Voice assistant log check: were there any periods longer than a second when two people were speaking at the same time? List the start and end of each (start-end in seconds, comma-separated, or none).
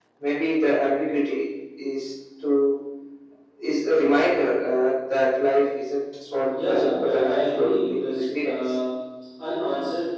6.5-8.7